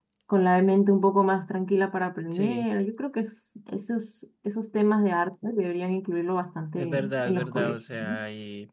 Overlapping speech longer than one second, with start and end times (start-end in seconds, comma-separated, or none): 6.8-8.2